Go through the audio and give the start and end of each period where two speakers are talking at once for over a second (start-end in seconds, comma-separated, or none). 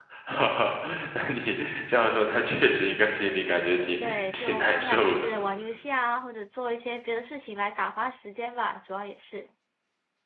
4.0-5.3